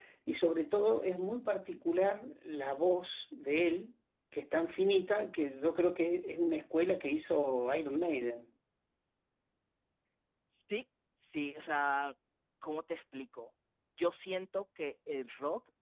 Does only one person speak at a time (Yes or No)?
Yes